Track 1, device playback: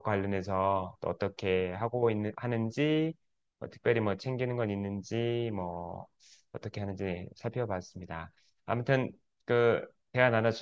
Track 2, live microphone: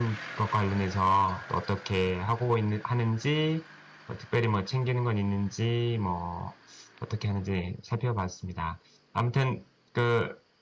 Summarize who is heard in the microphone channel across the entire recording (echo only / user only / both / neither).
echo only